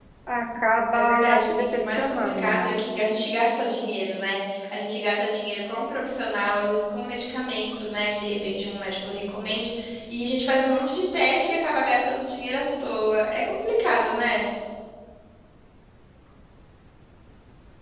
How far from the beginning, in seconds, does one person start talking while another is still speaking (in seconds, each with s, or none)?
0.9 s